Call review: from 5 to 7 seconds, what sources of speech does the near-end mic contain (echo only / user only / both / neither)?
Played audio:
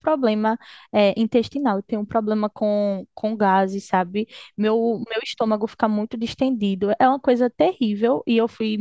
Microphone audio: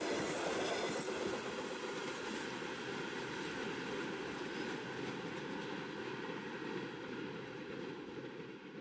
neither